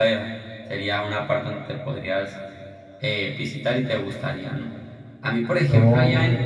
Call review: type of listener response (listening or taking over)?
listening